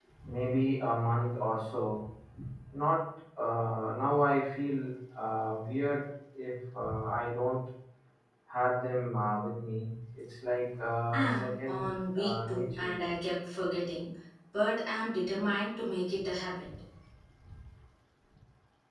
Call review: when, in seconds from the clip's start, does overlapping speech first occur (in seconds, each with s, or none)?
11.1 s